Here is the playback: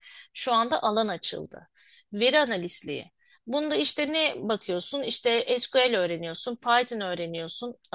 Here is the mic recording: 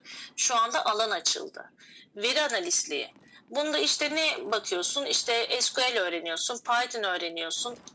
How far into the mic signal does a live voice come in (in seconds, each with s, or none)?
none